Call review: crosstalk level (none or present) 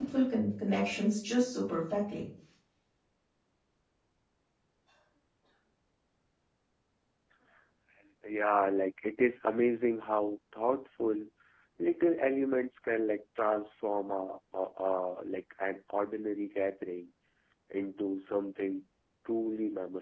none